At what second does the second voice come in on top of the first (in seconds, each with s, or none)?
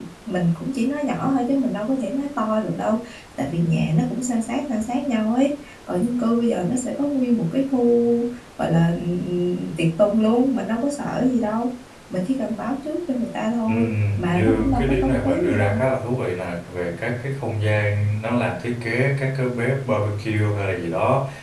13.7 s